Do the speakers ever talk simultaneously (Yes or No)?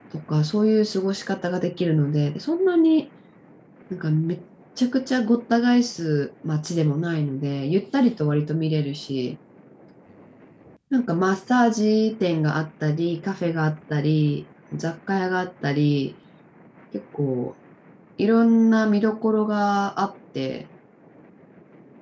No